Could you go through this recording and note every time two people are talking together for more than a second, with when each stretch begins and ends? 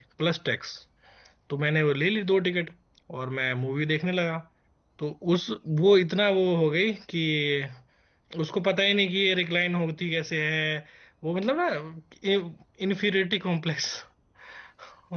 none

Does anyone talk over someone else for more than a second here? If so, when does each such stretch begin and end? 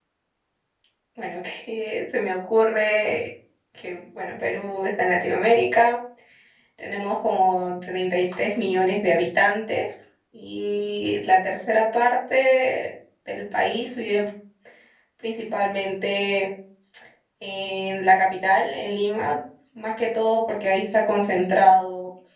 none

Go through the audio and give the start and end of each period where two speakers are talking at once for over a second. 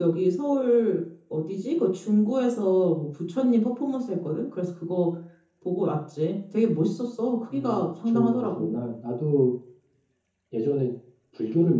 7.5-8.7

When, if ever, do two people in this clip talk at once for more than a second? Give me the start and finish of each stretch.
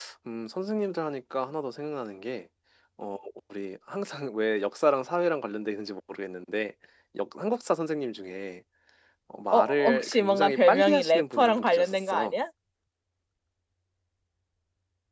9.5-12.4

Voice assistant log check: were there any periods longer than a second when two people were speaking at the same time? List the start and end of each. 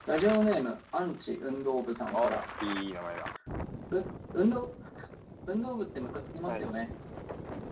none

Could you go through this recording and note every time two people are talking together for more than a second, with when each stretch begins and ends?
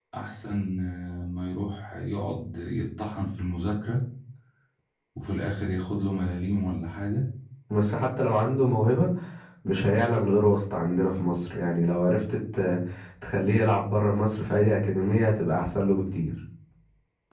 none

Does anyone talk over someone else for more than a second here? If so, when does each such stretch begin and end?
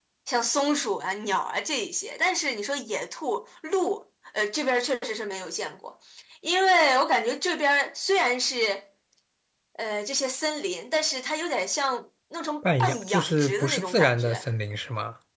12.8-14.4

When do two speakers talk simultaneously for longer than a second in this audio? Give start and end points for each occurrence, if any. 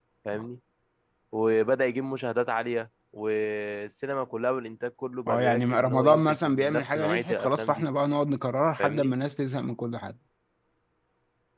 5.3-7.8

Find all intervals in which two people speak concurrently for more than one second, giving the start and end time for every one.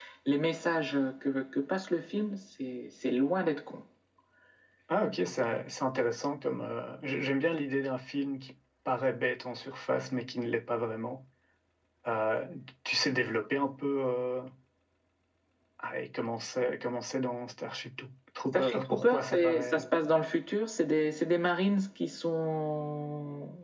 18.5-19.9

